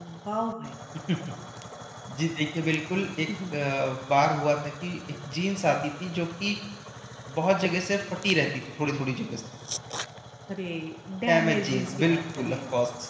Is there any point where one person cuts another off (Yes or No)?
Yes